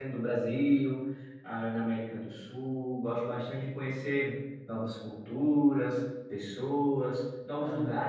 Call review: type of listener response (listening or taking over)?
listening